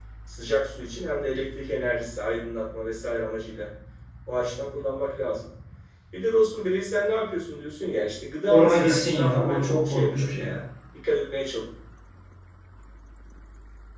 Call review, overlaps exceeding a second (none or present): present